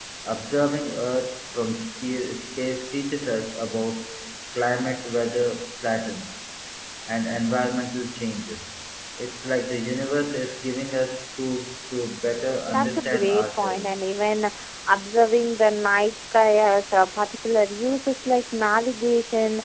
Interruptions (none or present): present